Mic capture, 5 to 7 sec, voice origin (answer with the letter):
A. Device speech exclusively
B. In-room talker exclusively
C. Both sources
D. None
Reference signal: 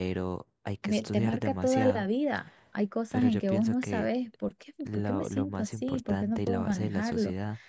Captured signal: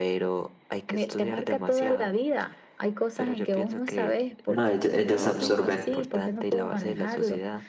C